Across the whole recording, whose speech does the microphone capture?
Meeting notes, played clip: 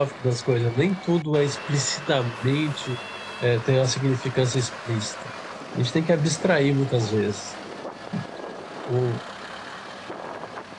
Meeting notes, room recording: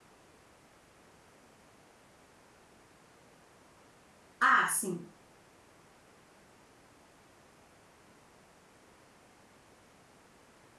user only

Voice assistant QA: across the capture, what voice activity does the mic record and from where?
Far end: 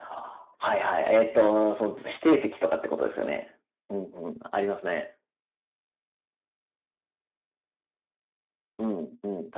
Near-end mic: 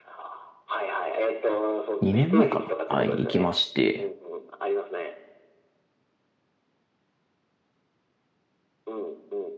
both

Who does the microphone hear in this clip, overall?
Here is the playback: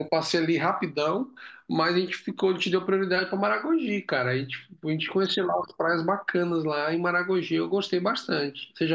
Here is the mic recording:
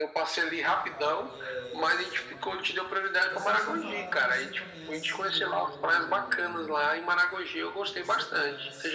both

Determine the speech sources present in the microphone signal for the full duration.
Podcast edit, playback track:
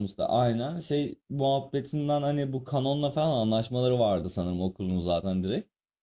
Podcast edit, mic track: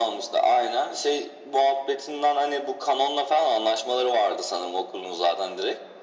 echo only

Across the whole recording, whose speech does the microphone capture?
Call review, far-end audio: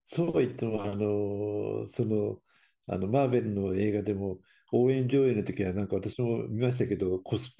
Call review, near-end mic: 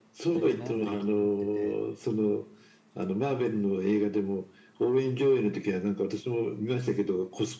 both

